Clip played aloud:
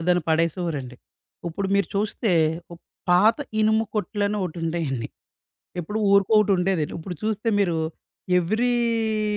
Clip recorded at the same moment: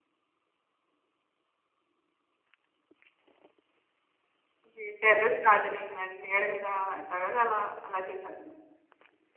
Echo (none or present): none